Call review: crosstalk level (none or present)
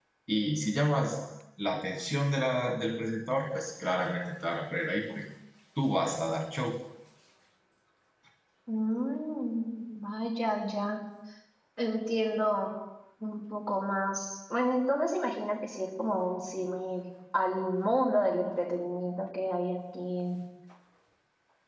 none